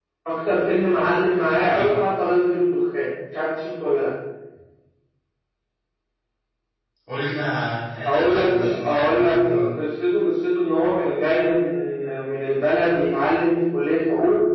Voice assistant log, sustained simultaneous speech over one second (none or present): present